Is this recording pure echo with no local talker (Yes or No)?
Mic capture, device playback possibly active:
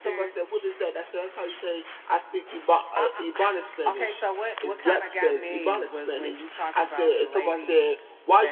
Yes